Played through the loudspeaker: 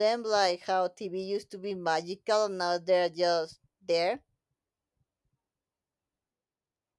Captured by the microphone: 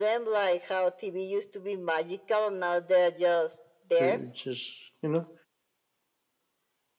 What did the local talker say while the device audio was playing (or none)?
Uh, Just you know,